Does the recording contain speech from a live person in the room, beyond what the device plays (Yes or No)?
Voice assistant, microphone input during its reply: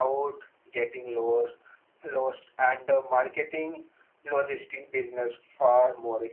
No